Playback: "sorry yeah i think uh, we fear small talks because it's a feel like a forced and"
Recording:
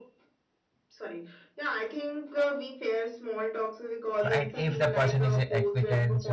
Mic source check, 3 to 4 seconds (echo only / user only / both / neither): echo only